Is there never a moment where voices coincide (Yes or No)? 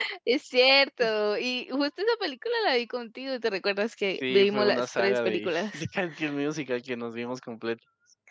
No